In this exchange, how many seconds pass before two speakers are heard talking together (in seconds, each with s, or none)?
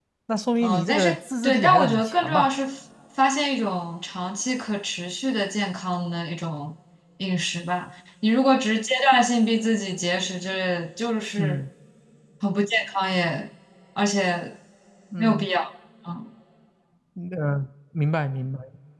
0.6 s